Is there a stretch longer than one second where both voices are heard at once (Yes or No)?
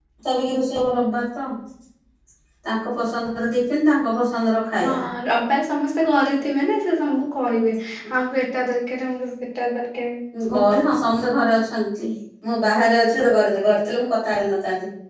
No